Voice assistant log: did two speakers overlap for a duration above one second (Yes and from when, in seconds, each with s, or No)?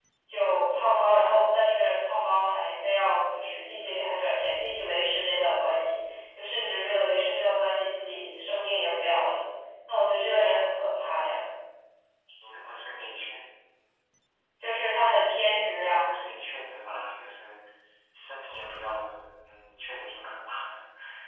No